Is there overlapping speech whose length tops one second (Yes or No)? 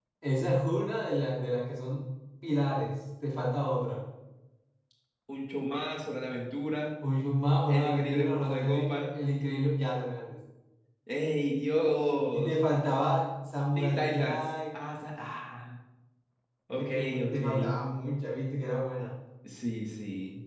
Yes